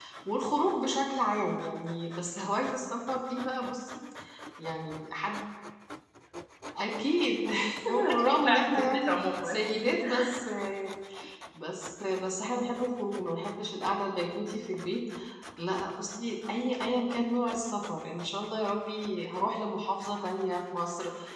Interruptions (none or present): present